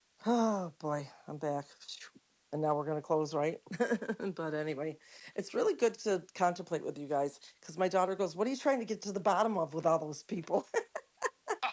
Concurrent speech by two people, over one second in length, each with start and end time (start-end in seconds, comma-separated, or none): none